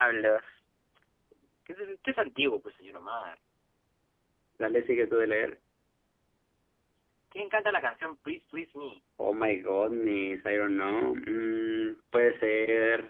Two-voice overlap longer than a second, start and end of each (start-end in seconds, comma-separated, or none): none